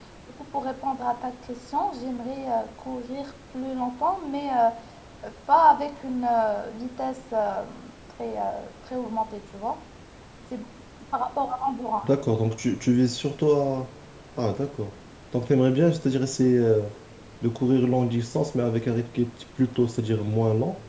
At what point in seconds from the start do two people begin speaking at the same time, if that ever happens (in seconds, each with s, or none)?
none